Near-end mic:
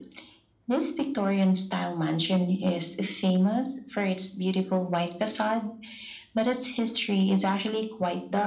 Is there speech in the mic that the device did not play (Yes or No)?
No